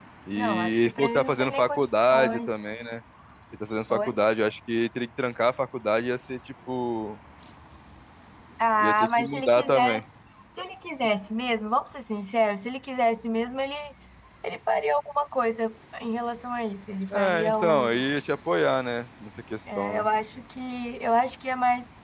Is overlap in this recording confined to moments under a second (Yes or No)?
No